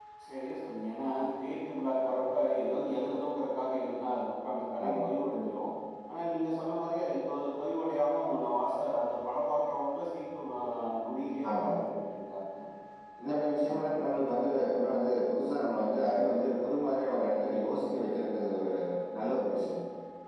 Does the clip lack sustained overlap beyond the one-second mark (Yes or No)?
Yes